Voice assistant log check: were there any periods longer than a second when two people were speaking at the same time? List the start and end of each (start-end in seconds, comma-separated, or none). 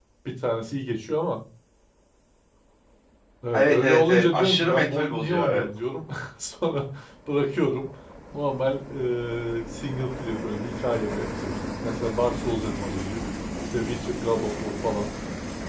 3.5-5.7